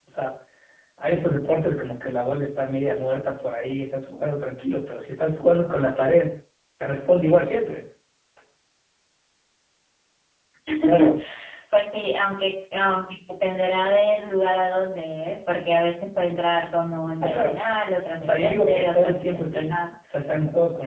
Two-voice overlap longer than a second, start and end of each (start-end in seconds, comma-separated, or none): 18.2-19.8